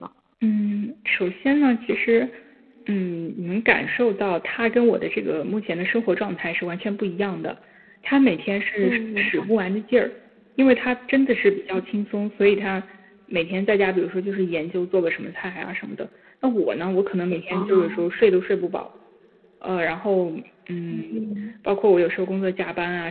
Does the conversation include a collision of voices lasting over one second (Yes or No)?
No